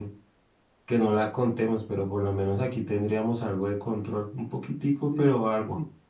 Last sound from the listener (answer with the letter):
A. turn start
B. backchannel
A